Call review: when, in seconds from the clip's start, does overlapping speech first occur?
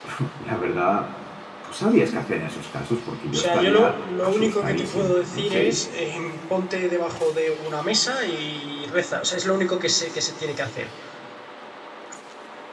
3 s

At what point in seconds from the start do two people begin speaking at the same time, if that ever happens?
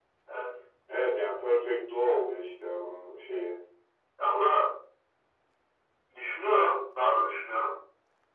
none

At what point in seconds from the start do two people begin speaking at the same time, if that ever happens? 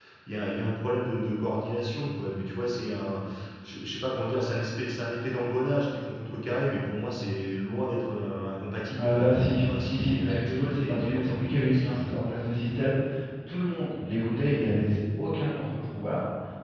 9 s

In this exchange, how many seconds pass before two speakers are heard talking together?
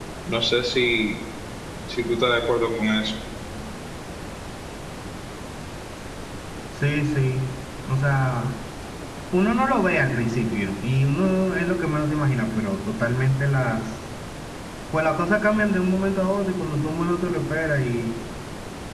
none

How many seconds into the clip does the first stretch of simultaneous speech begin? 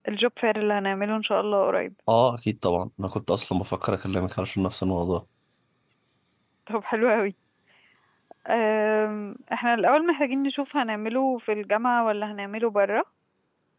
none

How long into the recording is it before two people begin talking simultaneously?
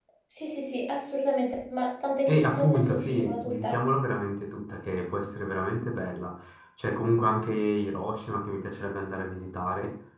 2 s

